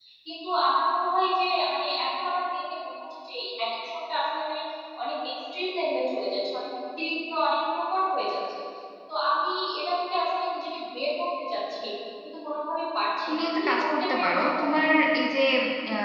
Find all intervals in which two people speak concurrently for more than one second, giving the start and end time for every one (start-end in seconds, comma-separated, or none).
13.3-14.6